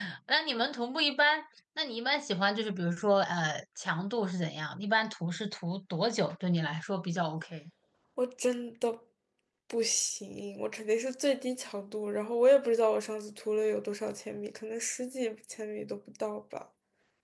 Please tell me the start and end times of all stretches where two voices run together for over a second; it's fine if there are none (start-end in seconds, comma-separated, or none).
none